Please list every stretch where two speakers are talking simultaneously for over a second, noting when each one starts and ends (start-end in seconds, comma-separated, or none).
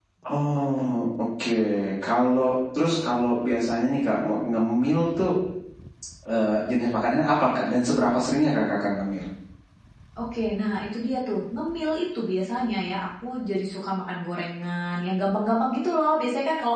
none